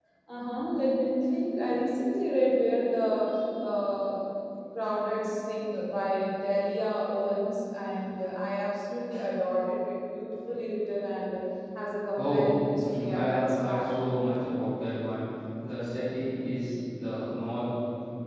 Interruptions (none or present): present